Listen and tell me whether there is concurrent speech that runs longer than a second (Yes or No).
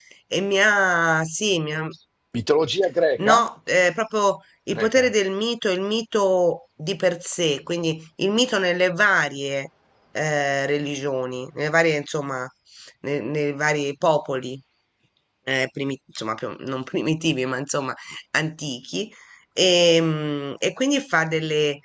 No